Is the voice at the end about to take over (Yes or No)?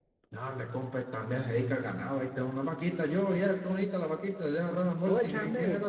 Yes